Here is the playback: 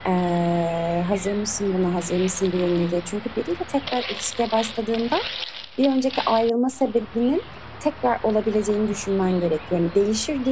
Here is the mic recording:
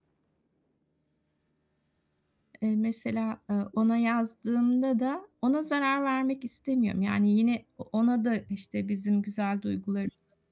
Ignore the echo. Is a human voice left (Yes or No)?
Yes